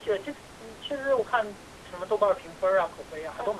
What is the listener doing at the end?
taking over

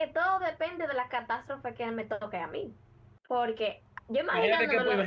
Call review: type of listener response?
taking over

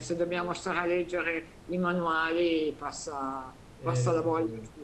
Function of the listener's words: listening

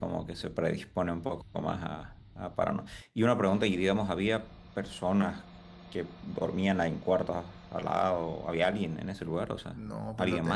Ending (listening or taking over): taking over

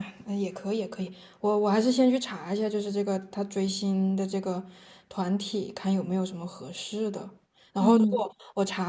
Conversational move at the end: listening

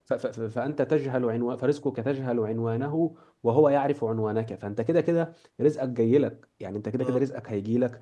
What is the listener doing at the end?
listening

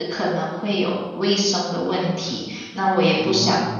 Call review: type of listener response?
listening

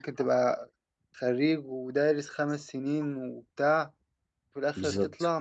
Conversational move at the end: listening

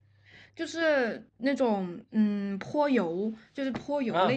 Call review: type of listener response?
taking over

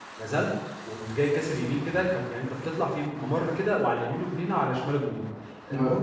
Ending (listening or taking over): listening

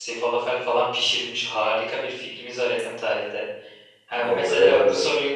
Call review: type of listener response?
listening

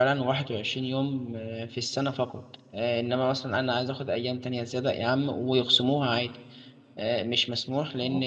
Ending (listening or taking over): listening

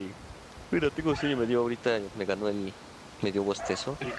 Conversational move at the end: listening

